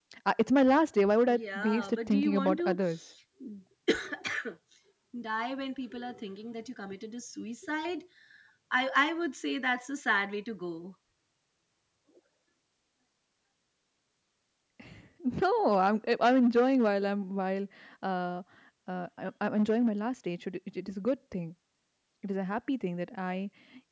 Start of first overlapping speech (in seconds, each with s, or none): 1.3 s